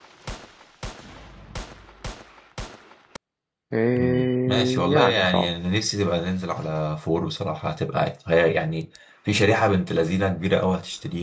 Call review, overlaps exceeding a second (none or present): present